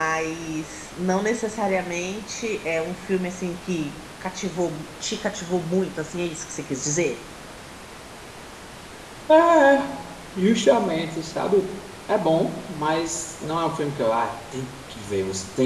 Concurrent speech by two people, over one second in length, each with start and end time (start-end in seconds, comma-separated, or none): none